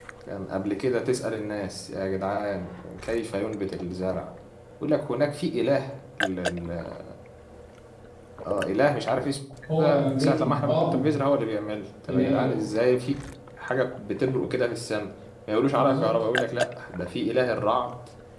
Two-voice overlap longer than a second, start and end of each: 9.8-11.0

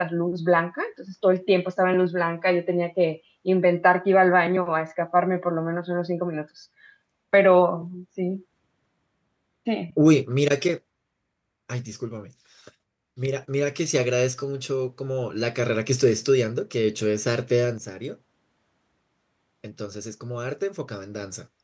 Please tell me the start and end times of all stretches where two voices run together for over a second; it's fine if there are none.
none

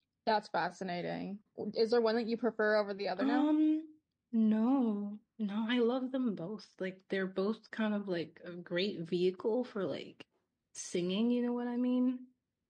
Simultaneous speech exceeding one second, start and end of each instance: none

